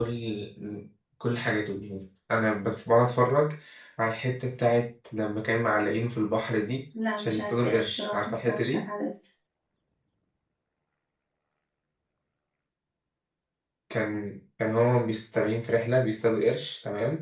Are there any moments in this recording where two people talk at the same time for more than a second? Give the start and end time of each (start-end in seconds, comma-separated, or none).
7.2-8.8